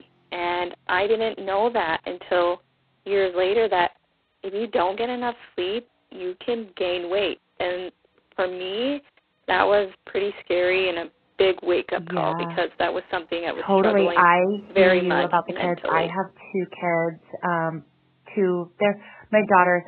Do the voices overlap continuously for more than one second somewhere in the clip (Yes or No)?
Yes